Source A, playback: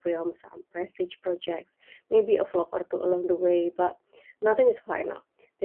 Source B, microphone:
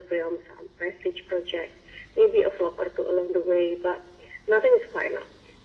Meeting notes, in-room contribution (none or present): none